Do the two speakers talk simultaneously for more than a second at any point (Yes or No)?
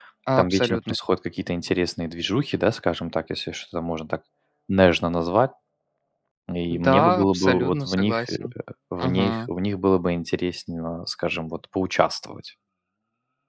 Yes